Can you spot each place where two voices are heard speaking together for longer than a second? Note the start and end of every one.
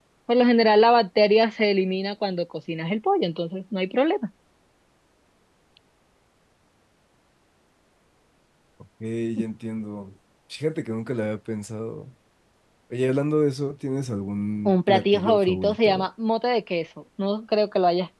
14.7-16.1

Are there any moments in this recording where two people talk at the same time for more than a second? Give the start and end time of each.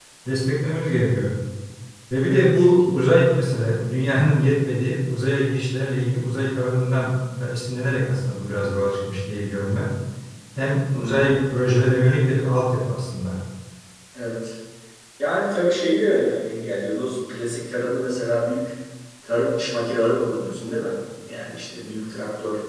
none

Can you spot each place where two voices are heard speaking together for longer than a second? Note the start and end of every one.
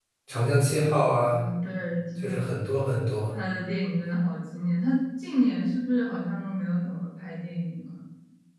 none

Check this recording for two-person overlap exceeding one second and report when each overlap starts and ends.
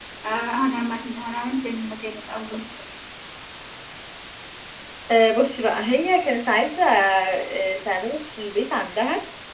none

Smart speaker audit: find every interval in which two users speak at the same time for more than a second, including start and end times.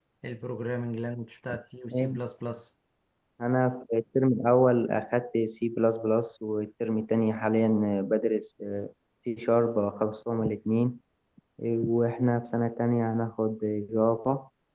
none

